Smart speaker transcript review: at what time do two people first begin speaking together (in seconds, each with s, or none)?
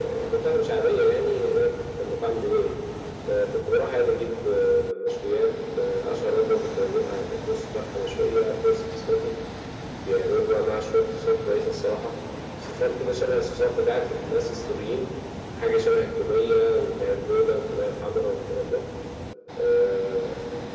none